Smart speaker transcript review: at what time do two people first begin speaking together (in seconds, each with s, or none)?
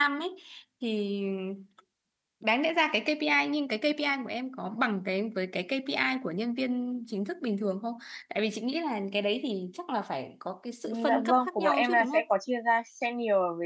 10.9 s